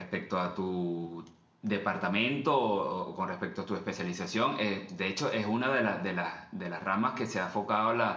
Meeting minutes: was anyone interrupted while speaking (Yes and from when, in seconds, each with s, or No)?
No